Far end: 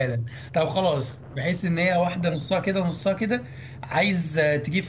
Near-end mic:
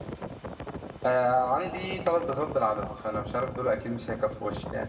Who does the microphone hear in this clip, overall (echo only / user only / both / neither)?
user only